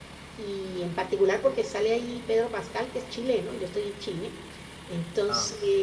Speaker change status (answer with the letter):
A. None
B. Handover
A